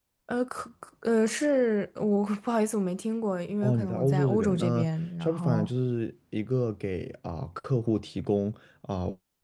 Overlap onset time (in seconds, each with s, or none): 3.6 s